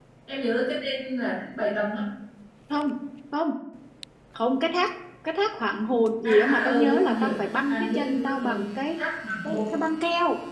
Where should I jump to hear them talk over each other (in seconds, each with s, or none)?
6.2 s